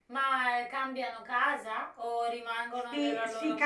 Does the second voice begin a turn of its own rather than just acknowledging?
Yes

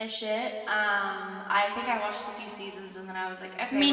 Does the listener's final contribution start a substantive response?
No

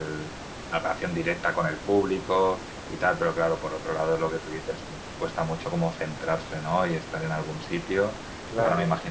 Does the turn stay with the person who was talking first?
Yes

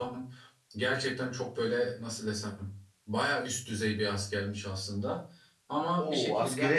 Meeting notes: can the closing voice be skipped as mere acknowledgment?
No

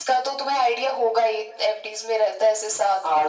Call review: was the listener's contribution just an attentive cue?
No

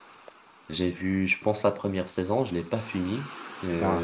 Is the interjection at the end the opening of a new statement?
No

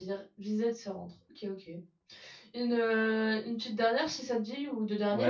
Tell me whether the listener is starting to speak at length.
Yes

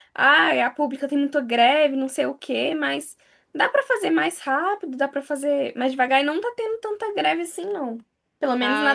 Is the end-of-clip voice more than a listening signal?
Yes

